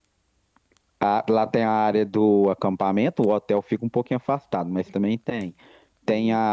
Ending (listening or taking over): listening